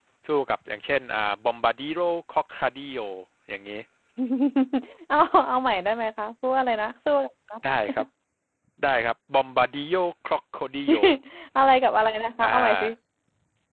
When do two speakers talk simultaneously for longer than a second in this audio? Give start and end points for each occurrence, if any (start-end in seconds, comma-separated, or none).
none